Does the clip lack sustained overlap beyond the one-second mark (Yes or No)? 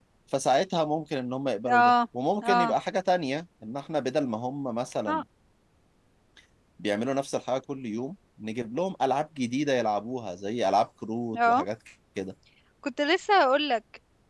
Yes